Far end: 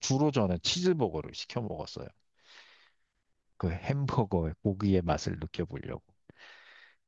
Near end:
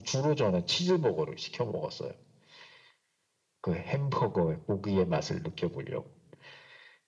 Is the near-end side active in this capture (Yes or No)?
No